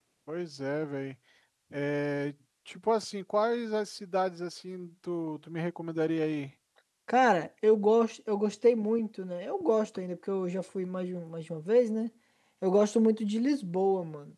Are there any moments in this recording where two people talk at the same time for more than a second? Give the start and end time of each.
none

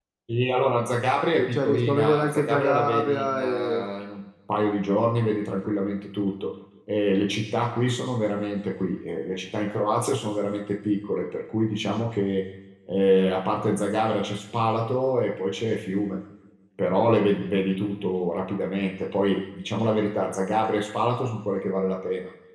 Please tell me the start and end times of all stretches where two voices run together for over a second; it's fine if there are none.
1.5-3.9

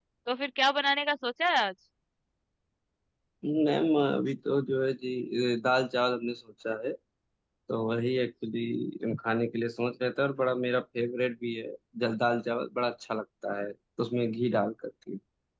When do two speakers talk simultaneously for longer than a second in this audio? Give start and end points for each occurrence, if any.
none

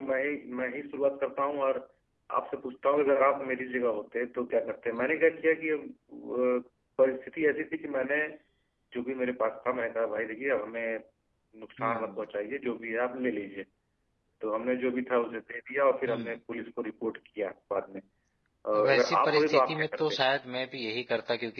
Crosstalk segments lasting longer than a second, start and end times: 18.8-20.2

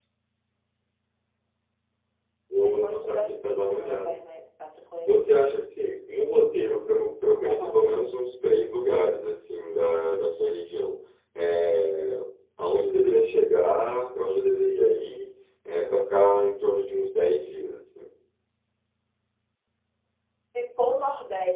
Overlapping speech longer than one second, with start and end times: 2.8-4.2

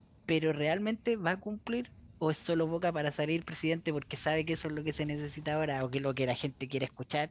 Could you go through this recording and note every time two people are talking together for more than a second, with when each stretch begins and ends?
none

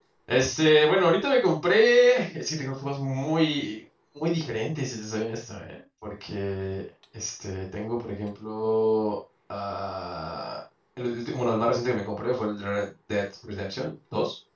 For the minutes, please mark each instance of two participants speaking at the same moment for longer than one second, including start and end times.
none

